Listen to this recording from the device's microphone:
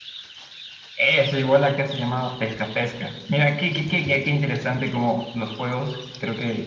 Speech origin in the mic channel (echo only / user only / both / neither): echo only